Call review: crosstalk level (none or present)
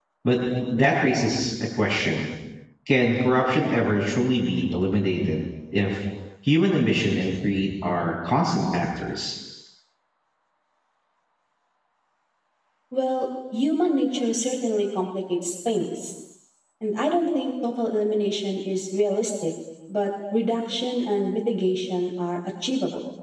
none